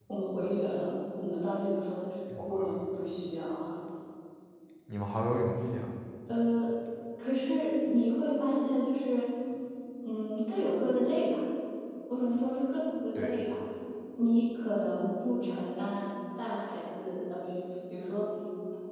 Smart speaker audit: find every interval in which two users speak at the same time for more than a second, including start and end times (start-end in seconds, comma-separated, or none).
none